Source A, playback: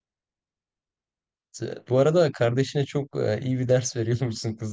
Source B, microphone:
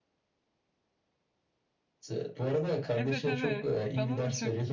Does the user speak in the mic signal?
Yes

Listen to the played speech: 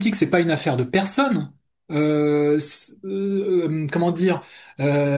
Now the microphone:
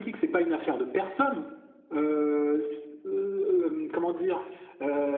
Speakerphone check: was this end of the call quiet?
Yes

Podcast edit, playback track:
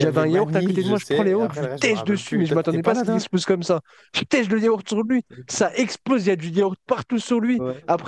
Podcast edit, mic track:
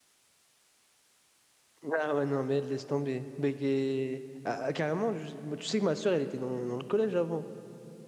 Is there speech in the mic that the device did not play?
Yes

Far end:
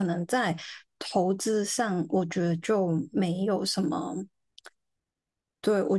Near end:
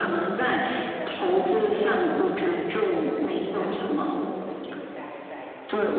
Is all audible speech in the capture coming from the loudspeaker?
No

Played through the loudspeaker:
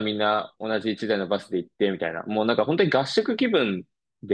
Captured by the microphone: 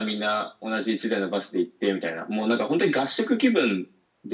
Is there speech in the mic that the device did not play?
No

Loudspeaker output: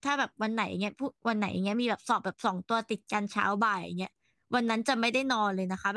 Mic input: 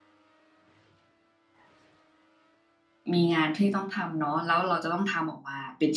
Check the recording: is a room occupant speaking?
Yes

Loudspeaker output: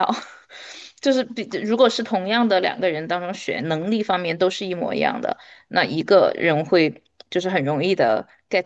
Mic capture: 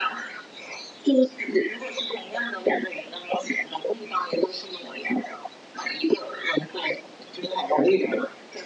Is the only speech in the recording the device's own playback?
Yes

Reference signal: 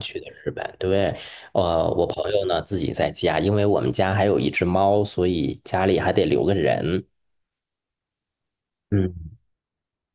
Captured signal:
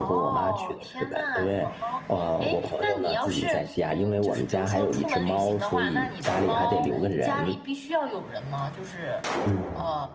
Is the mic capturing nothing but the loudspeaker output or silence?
No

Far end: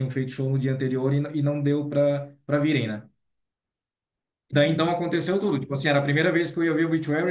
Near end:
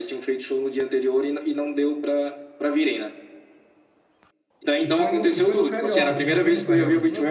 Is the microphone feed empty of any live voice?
No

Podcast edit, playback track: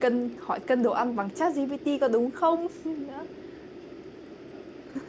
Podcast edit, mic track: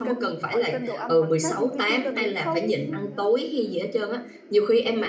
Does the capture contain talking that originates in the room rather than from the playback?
Yes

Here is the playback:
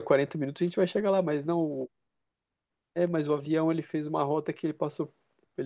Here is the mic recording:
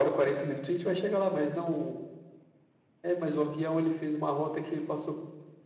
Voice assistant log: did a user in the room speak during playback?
No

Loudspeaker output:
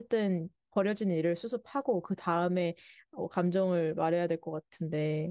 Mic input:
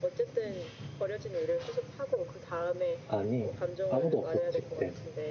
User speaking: Yes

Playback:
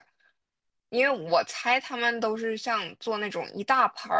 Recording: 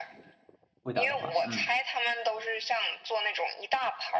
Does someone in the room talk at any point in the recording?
Yes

